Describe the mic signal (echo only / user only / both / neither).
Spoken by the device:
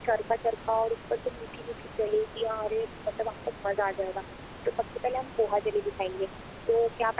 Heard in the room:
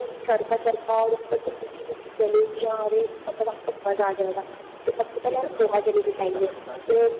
both